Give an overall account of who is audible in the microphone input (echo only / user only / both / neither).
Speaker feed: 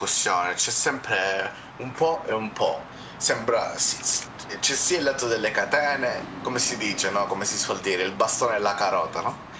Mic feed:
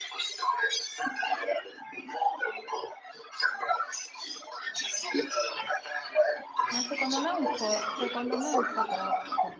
both